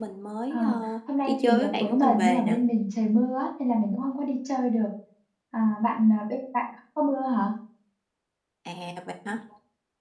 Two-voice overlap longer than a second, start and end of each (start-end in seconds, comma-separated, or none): 1.2-2.6